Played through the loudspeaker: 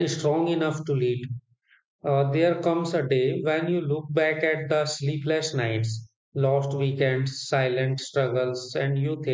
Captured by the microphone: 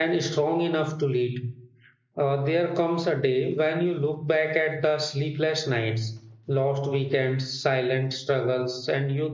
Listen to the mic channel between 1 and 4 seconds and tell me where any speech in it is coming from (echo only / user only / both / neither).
echo only